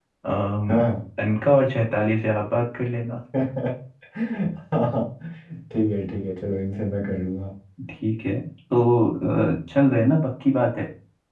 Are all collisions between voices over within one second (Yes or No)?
Yes